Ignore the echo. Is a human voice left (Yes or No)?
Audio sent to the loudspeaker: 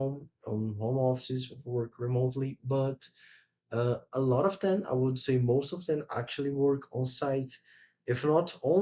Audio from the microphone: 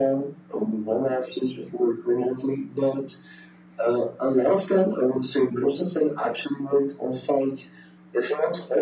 No